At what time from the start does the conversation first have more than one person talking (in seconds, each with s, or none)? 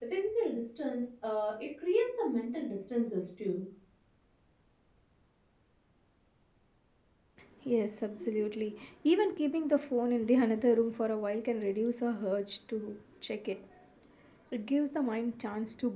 none